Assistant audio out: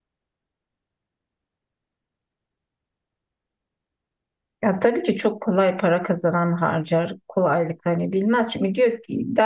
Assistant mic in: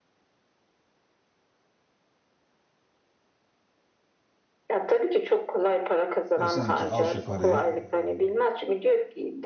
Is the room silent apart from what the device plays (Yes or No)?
No